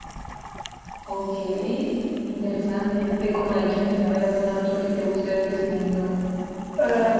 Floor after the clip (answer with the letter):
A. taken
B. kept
A